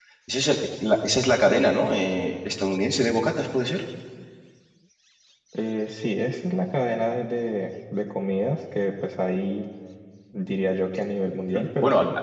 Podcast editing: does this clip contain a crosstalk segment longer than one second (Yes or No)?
No